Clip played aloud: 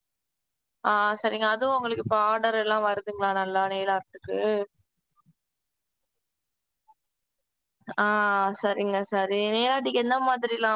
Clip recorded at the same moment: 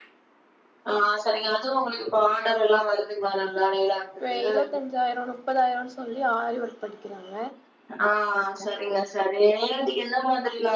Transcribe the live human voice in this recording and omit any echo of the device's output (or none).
ப்பே இருவத்தஞ்சாயிரம் முப்பதாயிரம்னு சொல்லி ஆரி ஒர்க் படிக்கிறாங்க